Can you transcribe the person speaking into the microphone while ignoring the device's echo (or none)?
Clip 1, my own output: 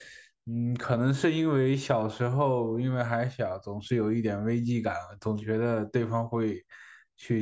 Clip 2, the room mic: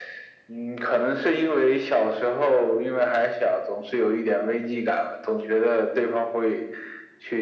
none